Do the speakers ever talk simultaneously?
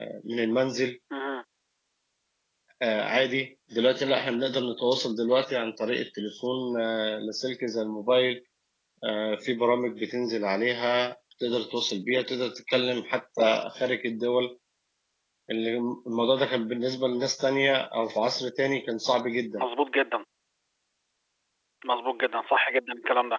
No

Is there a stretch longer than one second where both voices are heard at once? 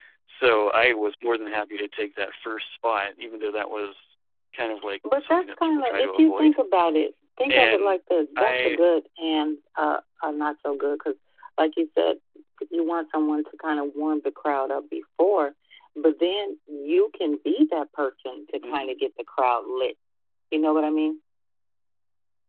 Yes, from 5.2 s

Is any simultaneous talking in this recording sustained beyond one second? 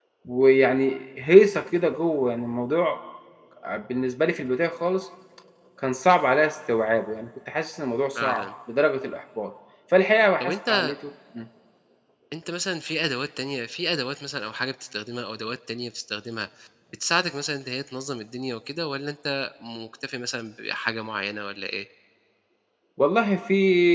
No

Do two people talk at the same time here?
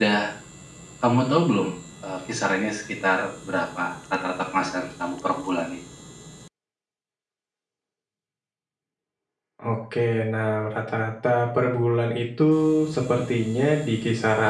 No

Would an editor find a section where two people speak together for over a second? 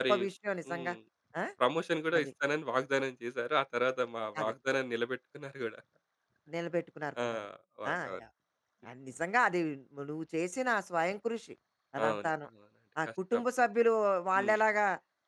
No

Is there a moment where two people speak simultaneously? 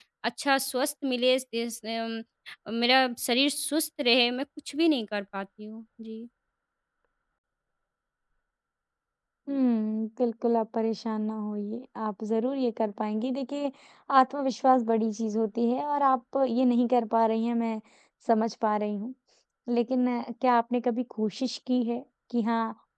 No

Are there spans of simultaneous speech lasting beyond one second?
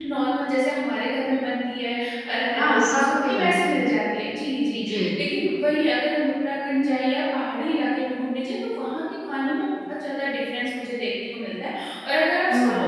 Yes, from 2.6 s

